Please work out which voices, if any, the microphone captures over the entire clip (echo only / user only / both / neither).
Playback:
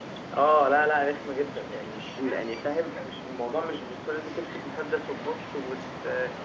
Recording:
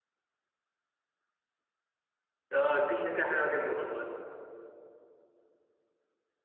user only